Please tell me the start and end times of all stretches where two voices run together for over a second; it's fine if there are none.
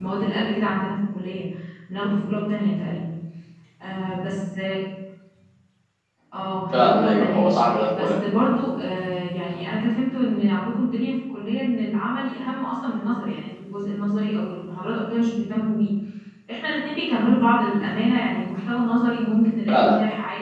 6.7-8.1

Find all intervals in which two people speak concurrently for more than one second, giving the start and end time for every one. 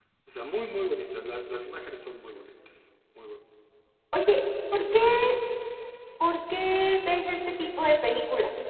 none

